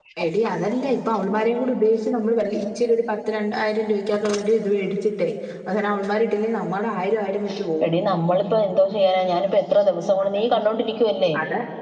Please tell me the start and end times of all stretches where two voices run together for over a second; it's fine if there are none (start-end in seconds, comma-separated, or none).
none